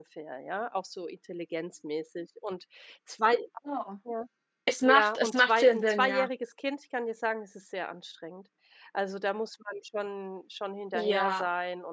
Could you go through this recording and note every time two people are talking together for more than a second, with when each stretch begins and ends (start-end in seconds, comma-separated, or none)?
4.9-6.3